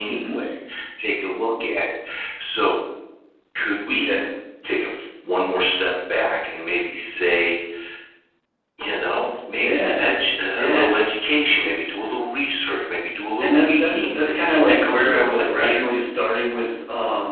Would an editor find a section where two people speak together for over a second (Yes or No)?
Yes